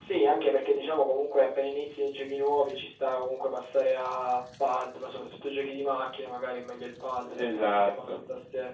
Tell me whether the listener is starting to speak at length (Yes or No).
No